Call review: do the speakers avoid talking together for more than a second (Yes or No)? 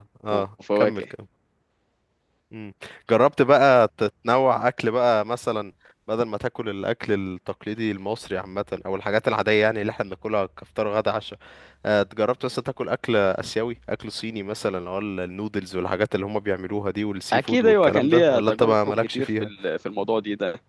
No